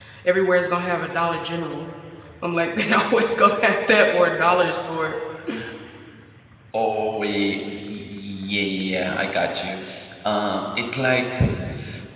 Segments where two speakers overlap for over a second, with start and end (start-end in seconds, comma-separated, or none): none